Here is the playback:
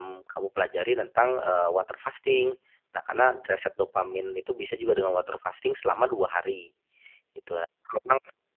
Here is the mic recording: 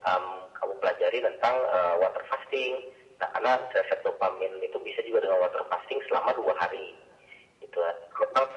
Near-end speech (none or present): none